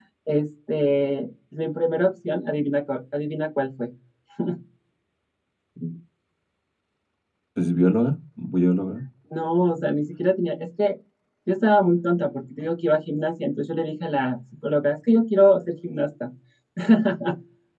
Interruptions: none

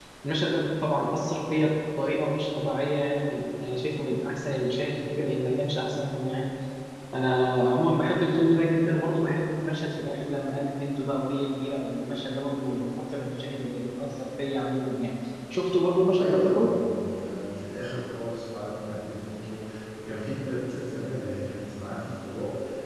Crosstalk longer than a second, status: none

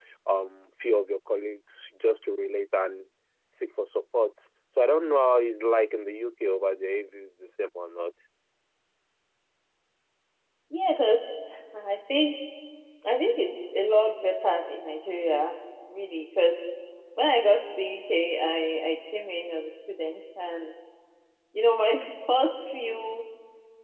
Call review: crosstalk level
none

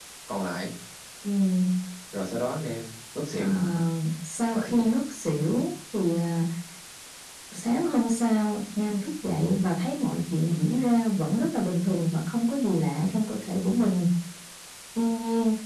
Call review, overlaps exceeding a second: none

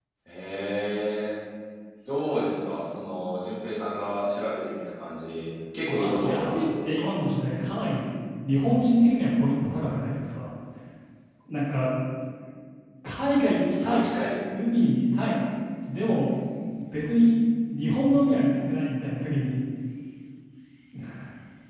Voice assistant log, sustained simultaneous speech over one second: present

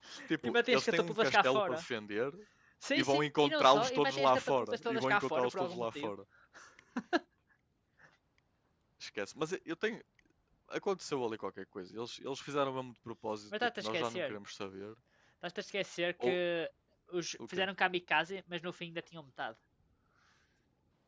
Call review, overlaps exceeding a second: present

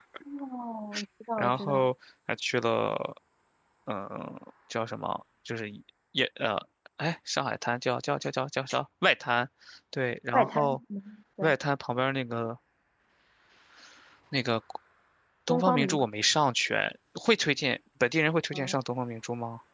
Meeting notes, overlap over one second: none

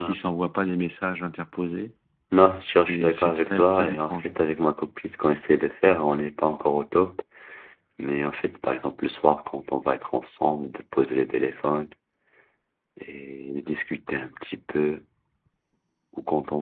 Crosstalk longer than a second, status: present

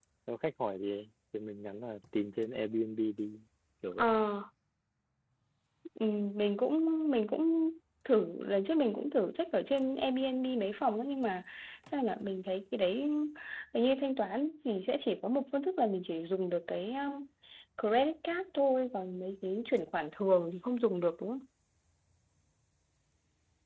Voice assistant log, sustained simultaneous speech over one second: none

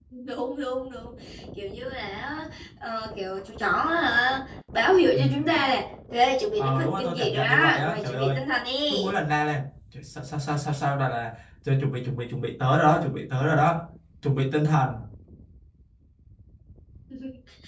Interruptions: present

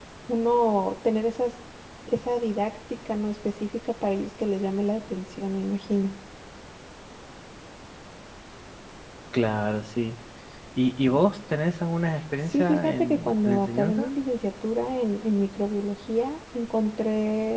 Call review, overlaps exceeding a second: present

